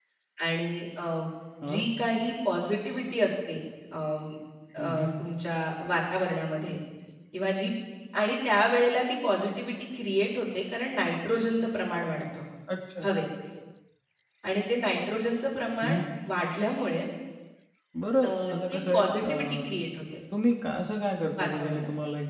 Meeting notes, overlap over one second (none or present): present